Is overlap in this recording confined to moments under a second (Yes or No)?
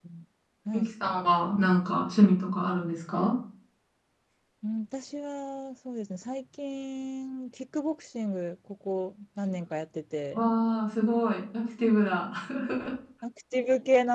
Yes